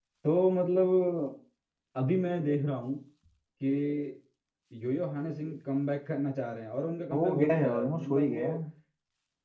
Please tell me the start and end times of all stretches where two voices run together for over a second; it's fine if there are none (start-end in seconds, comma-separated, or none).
7.1-8.5